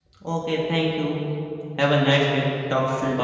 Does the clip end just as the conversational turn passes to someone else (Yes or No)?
Yes